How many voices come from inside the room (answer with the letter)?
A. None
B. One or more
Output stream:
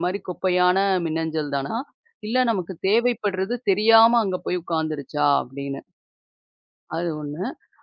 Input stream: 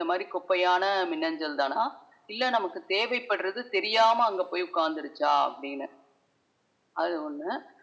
A